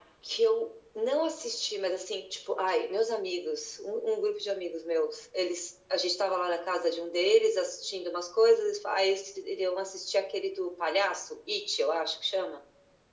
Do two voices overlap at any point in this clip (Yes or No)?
No